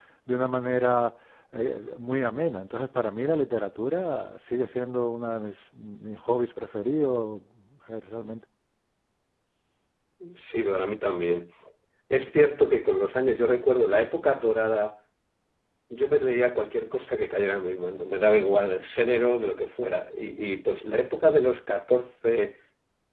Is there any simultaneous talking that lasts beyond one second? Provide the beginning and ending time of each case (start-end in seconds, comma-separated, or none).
none